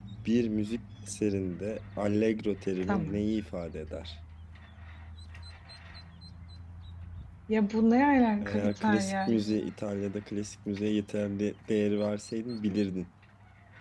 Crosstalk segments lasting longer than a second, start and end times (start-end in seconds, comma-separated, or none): 8.4-9.7